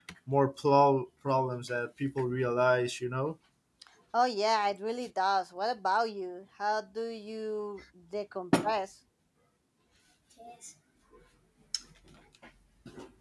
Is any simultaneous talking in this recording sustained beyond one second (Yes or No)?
No